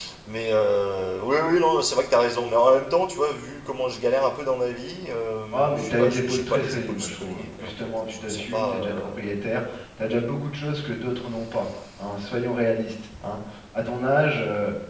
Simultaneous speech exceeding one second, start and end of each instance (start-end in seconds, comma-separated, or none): 5.5-9.1